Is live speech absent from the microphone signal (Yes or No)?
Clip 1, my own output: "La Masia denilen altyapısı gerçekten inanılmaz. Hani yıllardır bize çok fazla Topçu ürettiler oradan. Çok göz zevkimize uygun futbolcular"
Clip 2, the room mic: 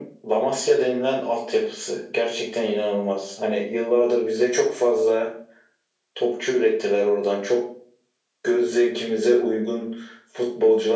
Yes